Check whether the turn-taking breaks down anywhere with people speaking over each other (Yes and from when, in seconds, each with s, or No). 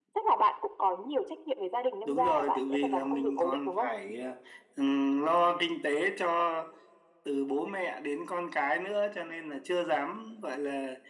Yes, from 2.0 s